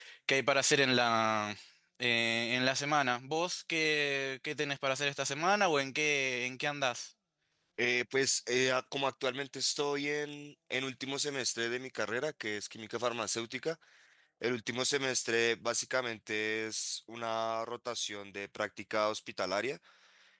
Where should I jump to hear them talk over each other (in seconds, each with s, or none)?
none